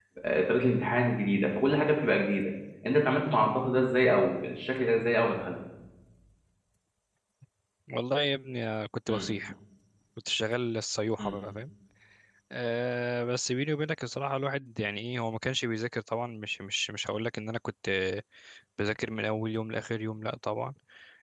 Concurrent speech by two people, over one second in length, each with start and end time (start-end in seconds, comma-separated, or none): none